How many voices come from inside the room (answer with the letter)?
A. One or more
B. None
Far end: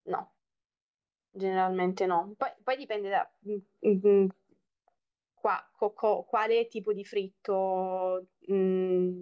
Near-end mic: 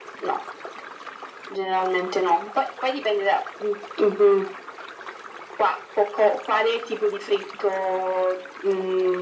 B